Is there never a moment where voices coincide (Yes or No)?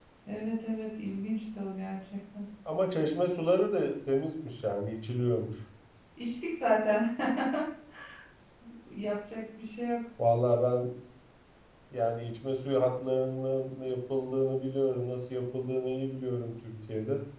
Yes